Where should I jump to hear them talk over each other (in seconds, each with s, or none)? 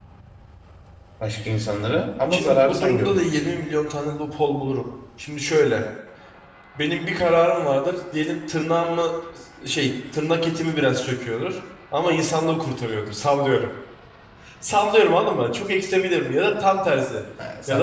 2.3 s